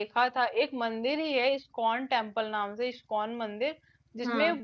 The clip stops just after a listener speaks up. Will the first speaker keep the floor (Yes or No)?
Yes